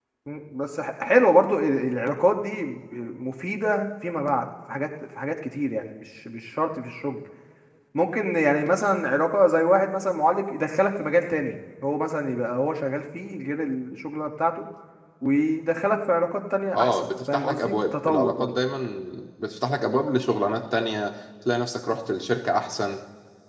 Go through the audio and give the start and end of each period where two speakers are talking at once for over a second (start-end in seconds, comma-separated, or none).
16.7-18.5